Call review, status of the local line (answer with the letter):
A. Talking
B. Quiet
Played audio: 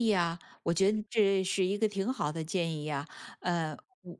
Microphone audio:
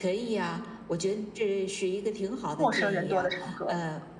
A